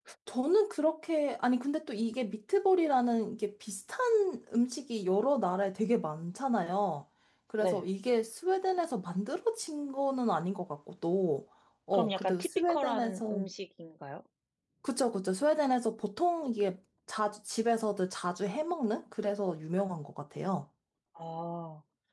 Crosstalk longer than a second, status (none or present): present